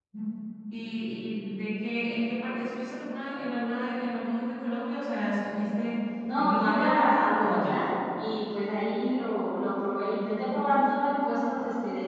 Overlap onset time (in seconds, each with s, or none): 6.2 s